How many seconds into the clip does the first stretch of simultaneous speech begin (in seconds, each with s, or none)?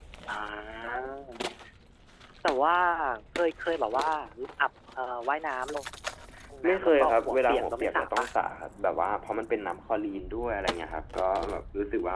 6.7 s